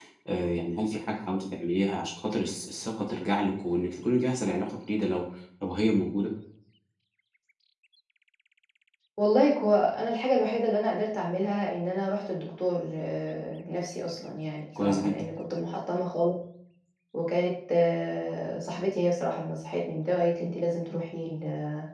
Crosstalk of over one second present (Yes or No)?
No